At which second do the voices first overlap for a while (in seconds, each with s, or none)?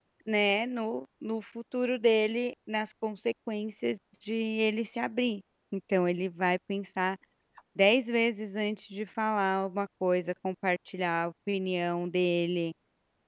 none